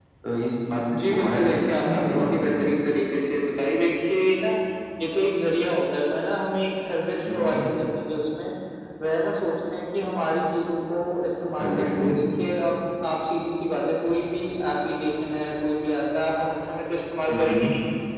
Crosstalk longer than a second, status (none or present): present